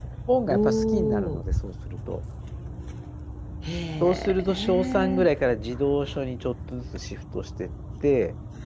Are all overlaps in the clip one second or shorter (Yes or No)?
No